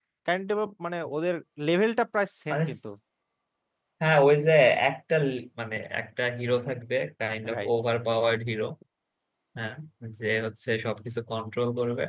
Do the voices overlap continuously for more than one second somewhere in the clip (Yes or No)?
No